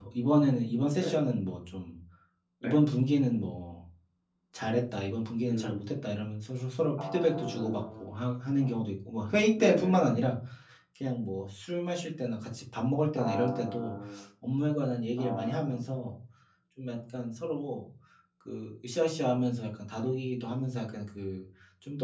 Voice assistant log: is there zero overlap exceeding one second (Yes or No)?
No